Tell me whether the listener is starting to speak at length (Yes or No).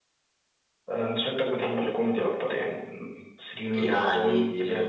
Yes